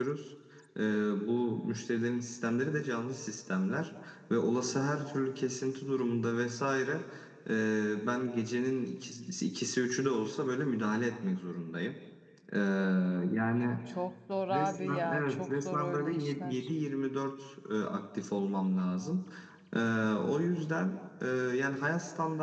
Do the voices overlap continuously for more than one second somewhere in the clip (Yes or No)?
Yes